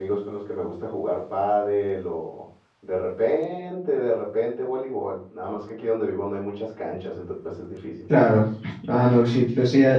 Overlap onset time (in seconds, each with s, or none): none